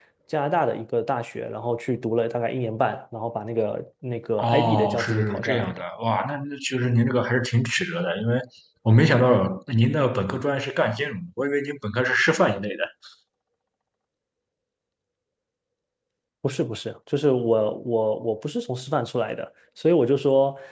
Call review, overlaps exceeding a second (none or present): present